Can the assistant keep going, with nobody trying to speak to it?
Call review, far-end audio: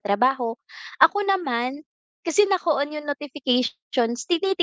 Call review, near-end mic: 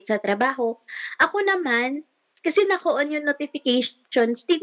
Yes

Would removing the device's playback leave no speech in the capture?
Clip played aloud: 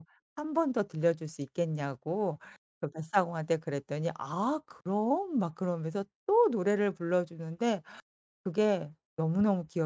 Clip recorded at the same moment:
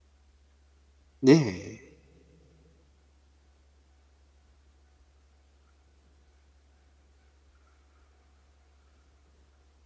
No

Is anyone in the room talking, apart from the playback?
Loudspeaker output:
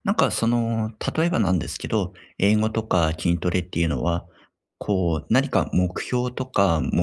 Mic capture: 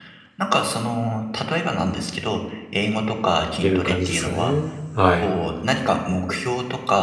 Yes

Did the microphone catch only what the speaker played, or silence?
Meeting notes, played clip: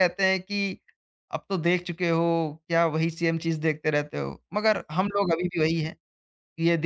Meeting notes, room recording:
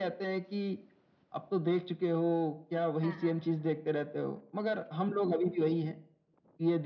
No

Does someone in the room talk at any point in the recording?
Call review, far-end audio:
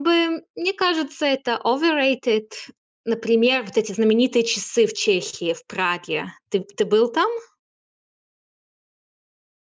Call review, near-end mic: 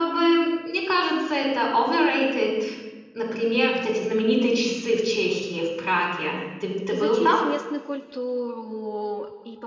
Yes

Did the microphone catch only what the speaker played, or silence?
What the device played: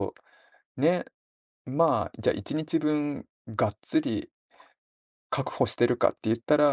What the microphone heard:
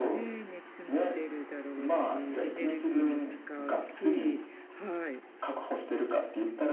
No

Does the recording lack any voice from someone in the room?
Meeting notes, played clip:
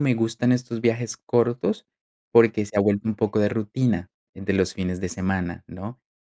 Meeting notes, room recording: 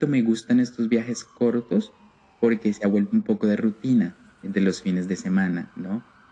Yes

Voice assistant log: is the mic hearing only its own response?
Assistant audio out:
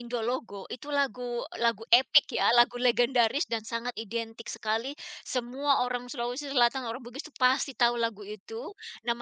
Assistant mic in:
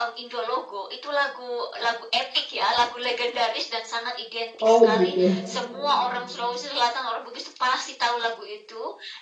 No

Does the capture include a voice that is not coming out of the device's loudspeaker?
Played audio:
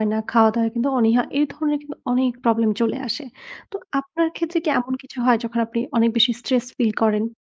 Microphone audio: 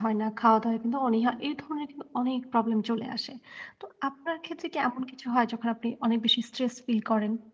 No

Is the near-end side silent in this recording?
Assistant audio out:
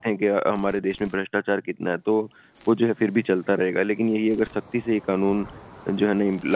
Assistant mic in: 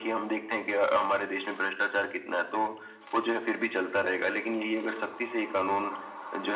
Yes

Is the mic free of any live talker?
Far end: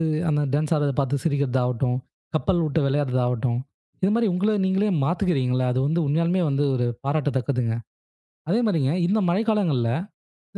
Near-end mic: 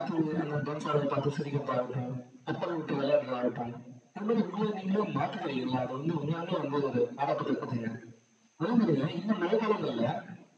Yes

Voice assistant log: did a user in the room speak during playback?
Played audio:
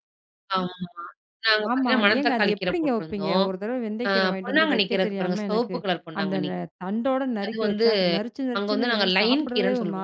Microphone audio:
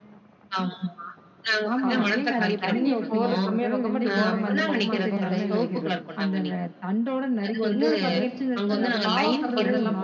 Yes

